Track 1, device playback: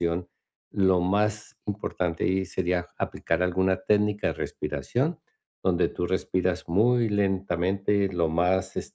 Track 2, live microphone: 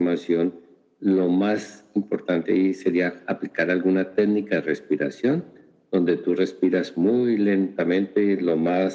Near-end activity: none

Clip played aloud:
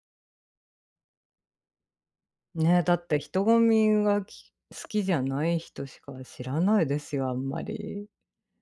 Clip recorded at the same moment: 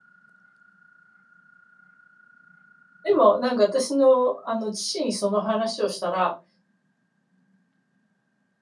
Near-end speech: present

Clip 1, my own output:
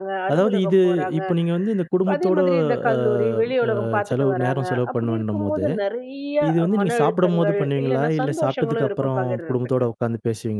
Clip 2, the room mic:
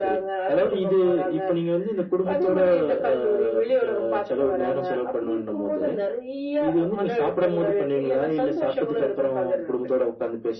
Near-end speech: none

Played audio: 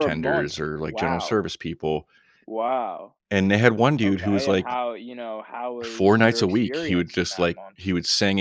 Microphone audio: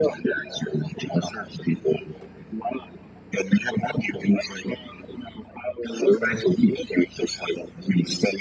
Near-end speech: present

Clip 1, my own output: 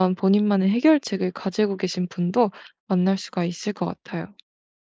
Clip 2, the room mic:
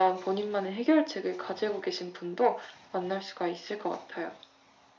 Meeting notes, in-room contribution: none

